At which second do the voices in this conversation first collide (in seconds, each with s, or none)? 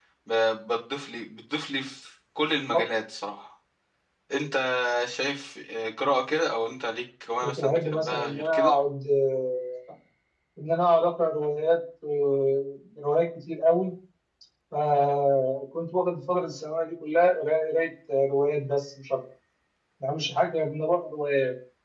7.4 s